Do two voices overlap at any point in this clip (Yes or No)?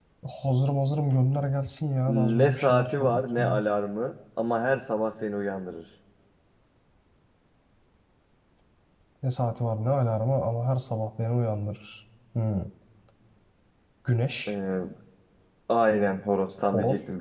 Yes